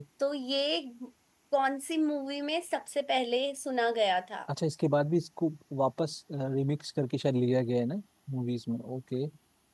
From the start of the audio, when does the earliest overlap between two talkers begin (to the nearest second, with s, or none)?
none